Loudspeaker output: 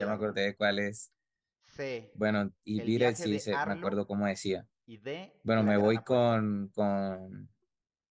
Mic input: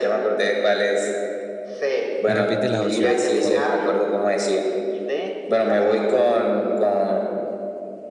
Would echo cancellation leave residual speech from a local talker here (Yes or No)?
Yes